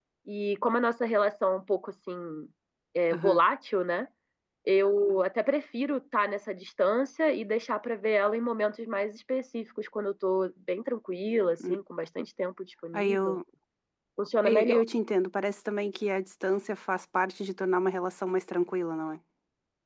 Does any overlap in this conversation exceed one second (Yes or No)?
No